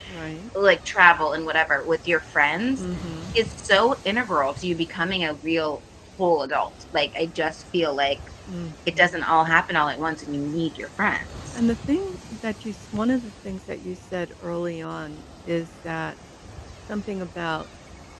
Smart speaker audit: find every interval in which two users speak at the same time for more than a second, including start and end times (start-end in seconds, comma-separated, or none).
none